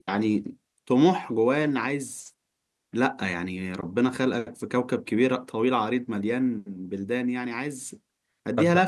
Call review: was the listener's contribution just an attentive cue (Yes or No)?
No